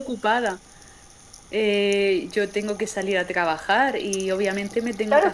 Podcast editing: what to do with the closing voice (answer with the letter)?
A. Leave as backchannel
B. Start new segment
B